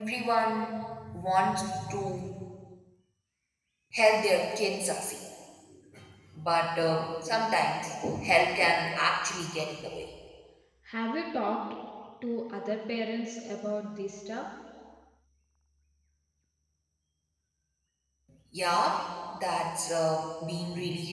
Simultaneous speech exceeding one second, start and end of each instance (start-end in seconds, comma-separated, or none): none